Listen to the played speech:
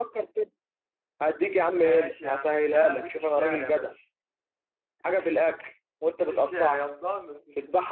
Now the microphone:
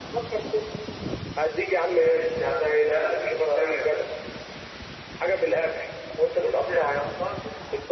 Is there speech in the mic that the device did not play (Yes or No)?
No